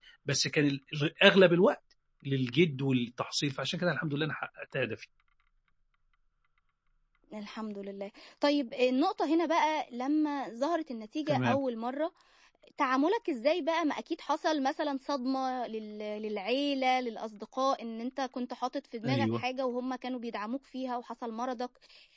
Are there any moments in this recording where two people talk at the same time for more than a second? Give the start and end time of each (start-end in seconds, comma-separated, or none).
none